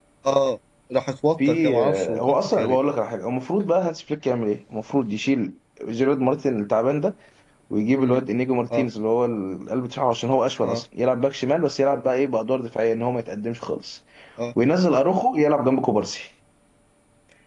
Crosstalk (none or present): present